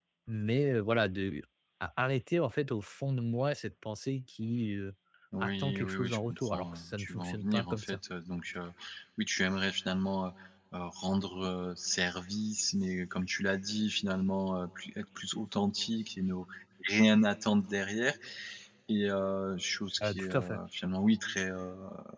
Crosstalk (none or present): present